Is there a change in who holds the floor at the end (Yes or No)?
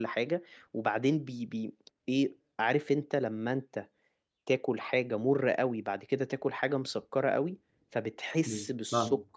No